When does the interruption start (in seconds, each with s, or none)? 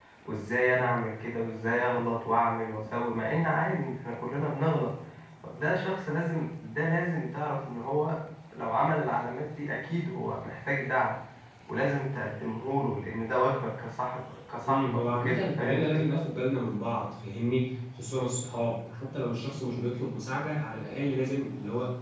14.7 s